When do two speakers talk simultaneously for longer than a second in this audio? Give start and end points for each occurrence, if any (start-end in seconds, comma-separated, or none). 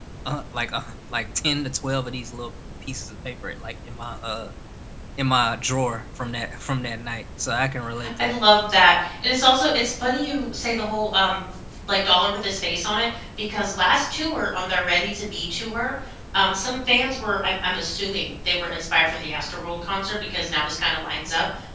none